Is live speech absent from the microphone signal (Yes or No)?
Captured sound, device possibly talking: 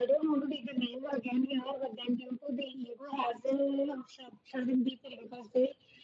Yes